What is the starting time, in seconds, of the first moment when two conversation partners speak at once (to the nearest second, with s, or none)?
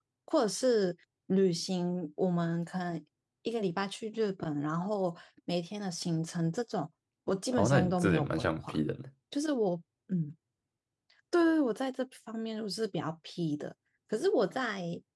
8 s